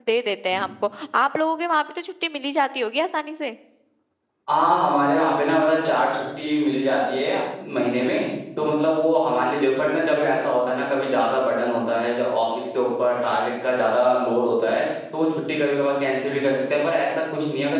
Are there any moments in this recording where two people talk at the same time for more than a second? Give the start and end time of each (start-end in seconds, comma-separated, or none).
none